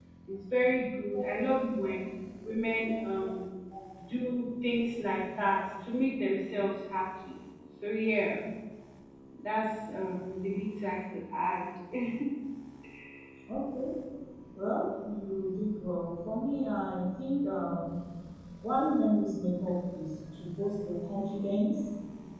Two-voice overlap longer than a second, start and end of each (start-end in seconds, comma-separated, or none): none